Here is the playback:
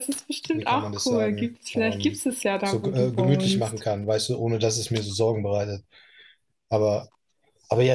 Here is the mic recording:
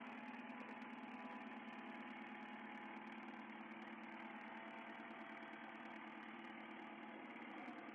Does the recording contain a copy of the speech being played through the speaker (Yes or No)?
No